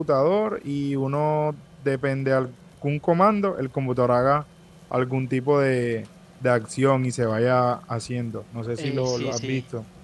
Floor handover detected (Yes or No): Yes